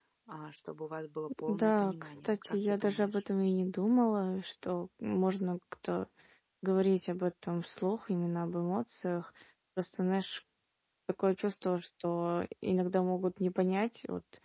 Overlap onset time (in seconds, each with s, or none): 1.4 s